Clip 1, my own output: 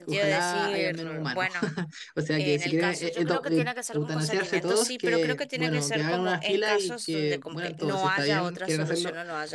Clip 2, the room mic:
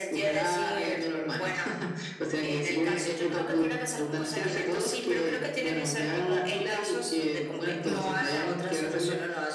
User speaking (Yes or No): Yes